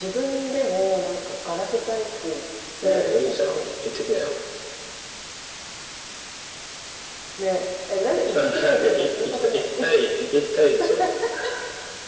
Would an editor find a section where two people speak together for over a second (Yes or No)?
Yes